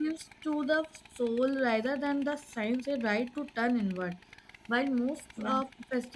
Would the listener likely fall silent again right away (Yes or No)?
Yes